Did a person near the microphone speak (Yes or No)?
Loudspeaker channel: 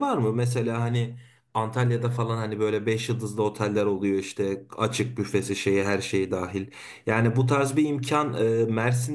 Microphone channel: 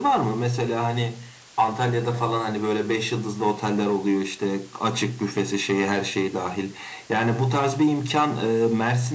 No